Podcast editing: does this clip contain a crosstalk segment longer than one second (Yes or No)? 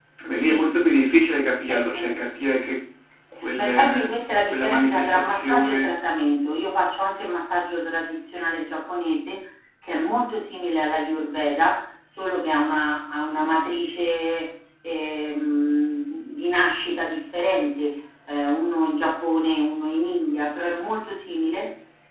Yes